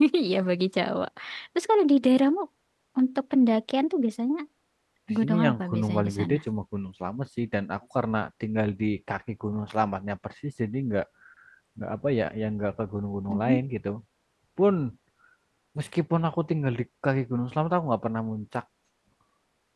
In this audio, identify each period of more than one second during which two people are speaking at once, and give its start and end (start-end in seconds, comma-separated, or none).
5.2-6.4